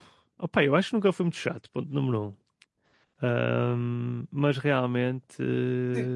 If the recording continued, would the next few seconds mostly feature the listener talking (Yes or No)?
Yes